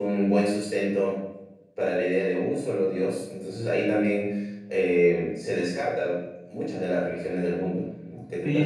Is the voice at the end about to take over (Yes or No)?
Yes